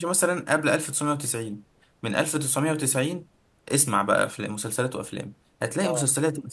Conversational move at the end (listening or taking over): listening